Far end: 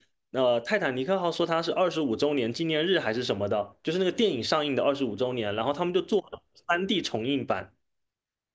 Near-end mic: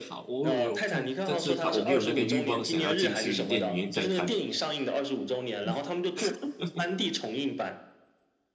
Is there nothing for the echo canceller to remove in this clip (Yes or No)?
No